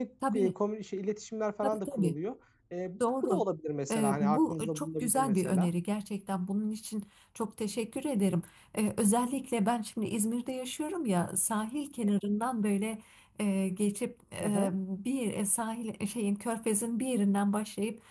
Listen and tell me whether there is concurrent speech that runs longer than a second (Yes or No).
Yes